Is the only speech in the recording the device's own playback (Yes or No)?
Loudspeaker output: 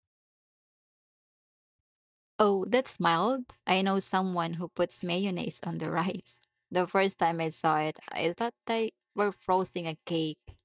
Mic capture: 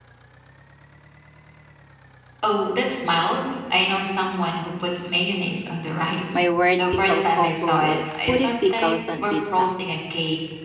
No